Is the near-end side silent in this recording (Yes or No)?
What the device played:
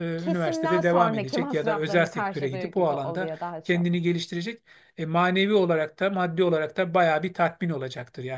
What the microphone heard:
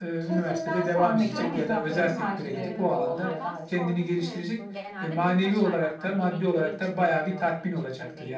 No